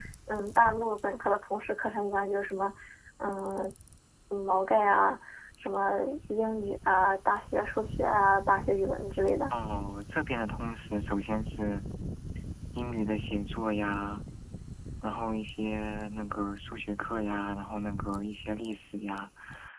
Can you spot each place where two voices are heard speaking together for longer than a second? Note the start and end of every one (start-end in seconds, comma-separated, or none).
none